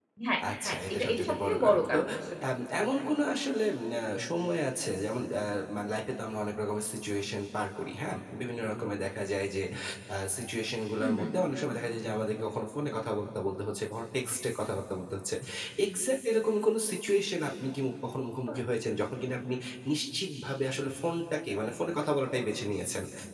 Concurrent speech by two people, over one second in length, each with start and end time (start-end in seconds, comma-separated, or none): 0.6-2.0